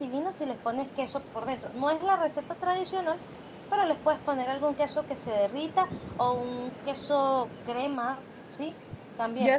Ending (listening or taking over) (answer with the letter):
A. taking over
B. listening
A